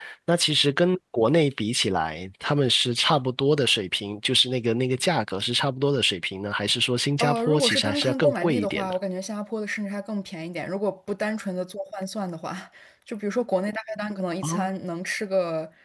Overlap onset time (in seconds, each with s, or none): 7.2 s